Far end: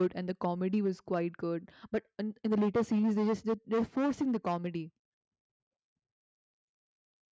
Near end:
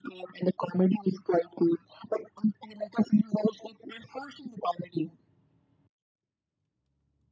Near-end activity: none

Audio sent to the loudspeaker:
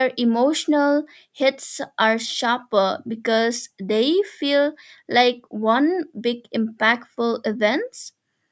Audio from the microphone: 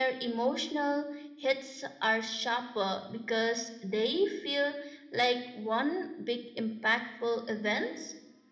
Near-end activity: none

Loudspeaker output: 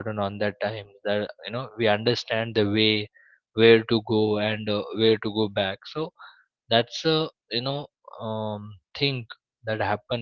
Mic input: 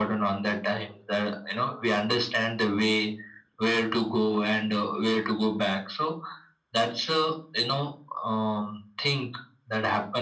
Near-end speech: none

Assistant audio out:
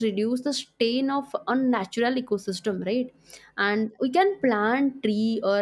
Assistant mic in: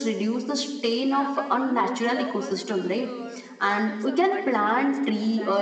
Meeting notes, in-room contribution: present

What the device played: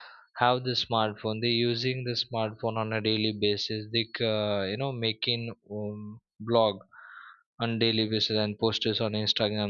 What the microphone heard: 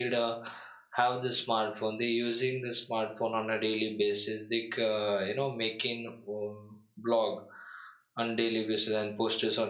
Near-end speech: none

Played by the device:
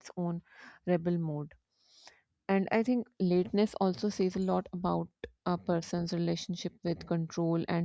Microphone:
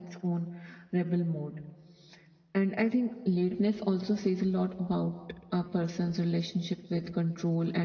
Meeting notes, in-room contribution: none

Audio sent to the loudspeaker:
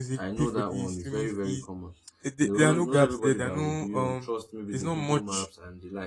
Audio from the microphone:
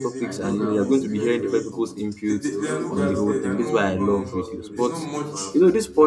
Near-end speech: present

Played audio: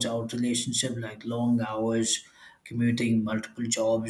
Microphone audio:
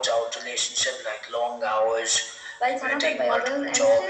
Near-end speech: present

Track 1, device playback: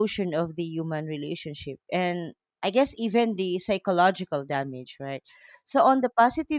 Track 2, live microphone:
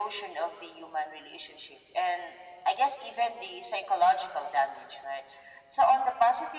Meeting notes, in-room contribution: none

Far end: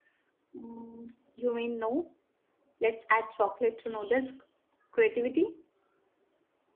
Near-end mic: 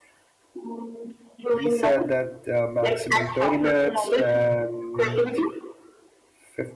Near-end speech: present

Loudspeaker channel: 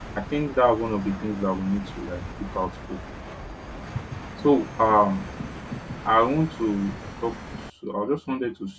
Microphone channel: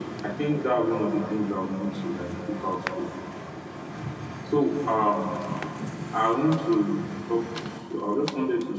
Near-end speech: none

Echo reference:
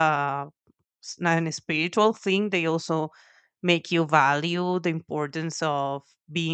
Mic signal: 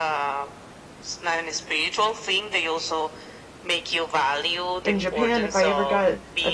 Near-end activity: present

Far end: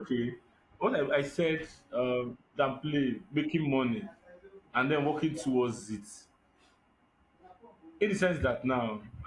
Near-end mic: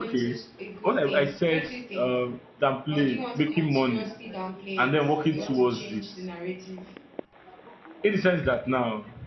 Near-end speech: present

